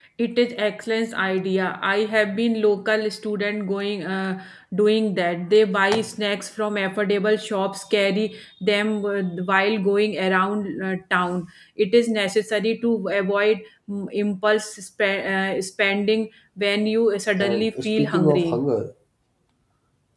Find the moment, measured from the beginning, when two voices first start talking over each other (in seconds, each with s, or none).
17.4 s